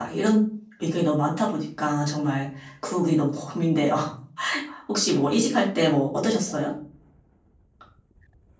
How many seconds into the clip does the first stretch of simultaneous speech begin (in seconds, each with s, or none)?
none